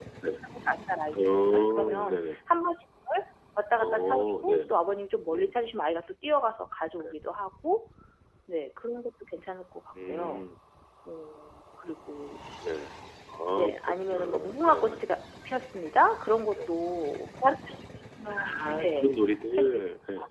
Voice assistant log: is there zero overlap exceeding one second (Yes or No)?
No